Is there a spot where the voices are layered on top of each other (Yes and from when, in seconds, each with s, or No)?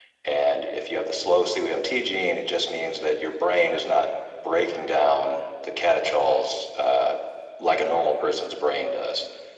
No